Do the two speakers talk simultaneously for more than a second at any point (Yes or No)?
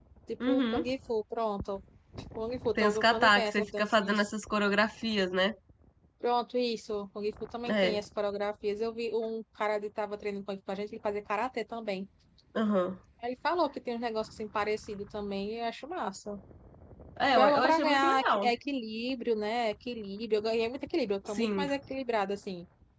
Yes